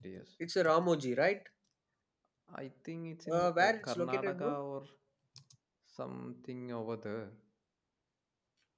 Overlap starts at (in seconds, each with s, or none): 3.3 s